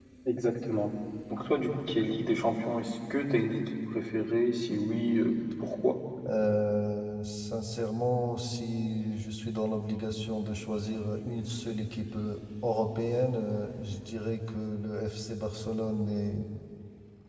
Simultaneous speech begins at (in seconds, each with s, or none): none